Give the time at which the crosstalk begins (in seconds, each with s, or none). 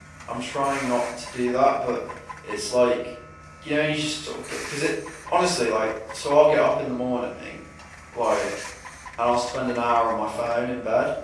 none